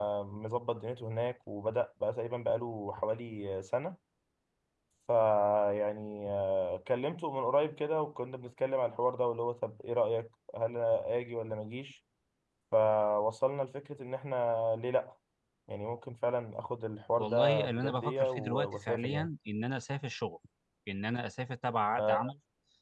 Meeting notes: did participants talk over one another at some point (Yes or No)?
Yes